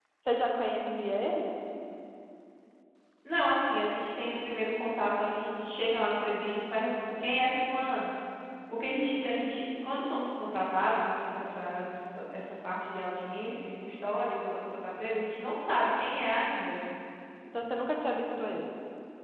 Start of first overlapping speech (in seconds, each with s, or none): none